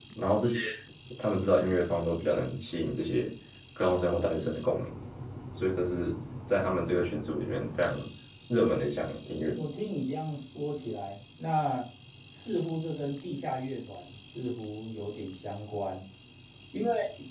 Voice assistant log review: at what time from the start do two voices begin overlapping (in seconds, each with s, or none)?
none